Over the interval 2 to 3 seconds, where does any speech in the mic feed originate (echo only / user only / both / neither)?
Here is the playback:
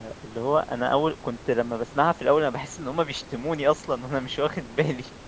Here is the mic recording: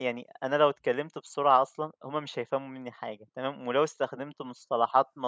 user only